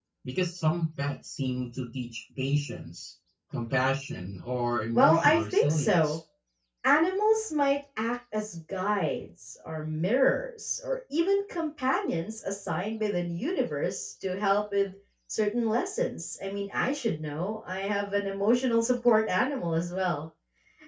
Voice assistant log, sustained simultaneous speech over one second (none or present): present